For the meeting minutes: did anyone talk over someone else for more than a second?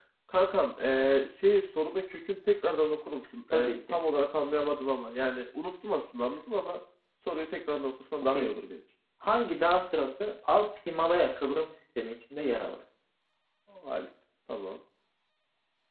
No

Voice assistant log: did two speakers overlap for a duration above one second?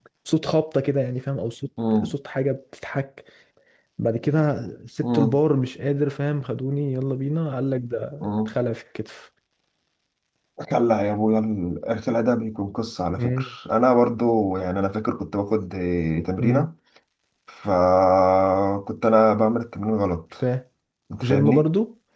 No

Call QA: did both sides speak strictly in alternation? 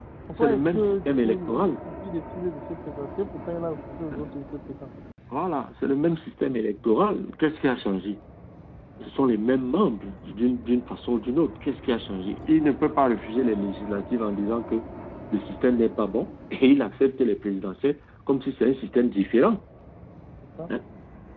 No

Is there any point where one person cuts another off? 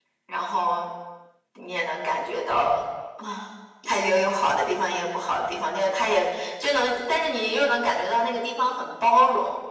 No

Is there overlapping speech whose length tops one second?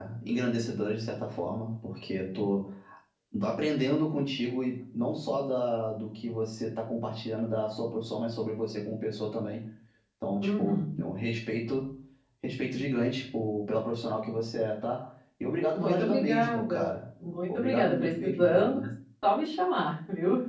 Yes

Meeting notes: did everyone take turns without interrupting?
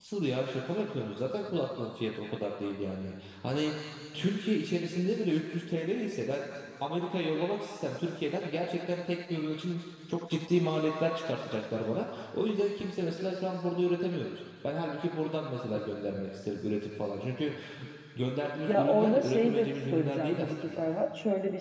No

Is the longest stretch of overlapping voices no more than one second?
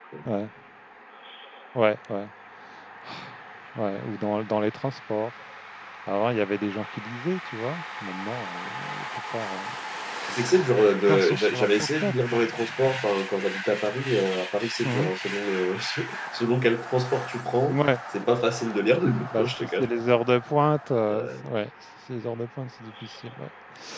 No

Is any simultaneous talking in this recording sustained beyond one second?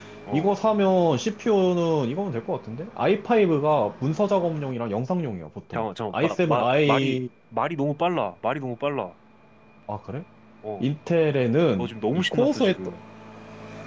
Yes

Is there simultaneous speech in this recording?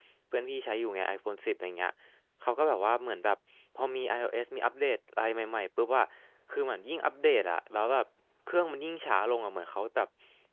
No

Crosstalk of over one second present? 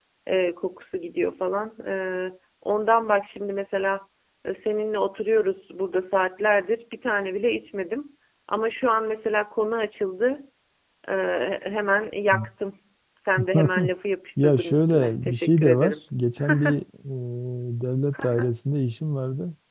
Yes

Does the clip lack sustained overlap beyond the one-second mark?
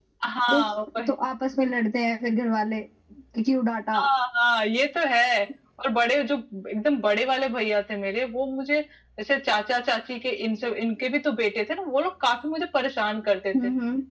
Yes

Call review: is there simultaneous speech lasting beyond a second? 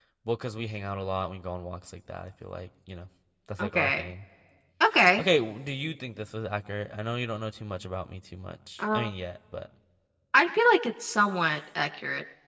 No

